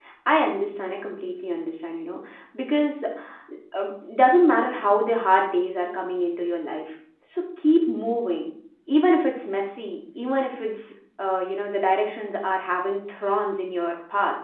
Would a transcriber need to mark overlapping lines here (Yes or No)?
No